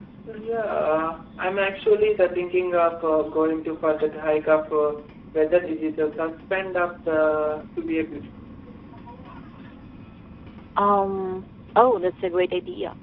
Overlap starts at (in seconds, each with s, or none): none